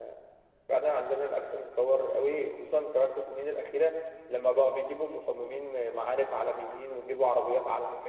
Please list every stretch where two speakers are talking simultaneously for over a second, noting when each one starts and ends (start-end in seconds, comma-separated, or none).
none